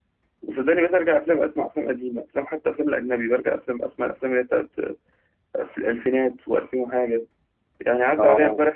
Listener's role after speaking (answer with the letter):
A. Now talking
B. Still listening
B